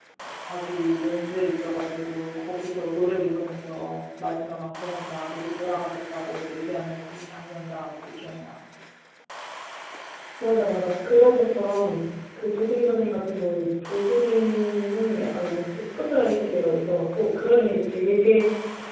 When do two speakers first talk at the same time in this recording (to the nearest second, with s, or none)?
none